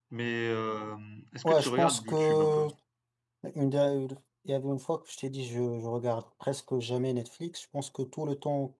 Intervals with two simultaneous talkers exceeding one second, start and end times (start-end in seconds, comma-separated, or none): 1.4-2.6